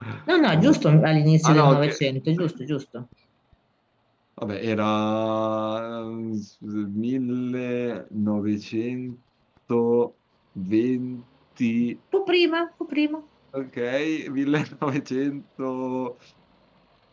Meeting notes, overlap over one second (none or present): none